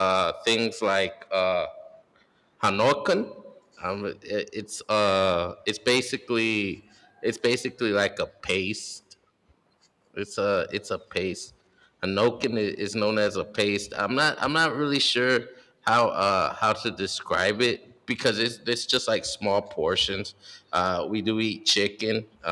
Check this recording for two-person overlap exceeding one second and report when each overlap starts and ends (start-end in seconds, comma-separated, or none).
none